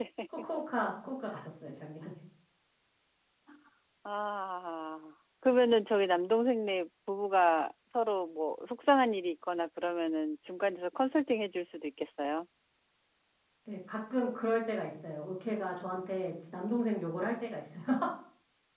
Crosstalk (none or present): none